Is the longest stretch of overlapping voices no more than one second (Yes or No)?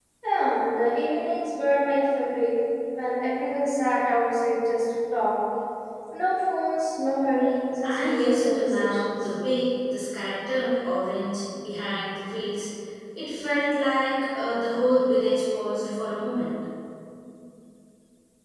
No